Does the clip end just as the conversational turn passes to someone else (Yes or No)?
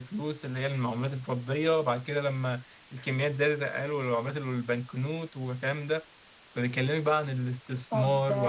Yes